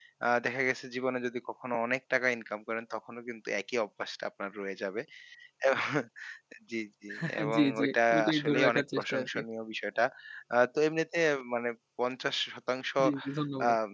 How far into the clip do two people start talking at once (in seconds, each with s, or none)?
7.2 s